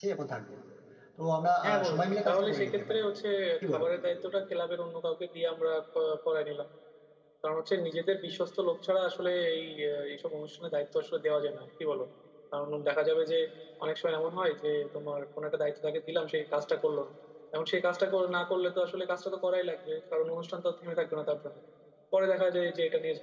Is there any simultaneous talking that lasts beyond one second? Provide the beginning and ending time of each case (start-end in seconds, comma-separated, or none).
1.6-3.0